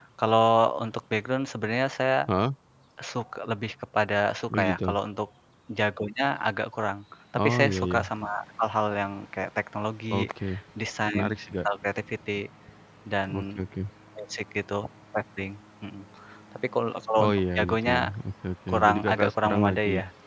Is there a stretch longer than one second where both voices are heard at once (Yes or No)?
Yes